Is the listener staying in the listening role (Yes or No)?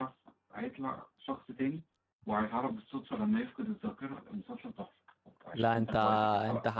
No